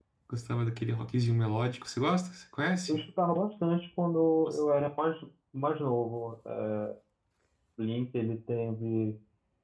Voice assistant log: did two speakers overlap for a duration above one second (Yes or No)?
No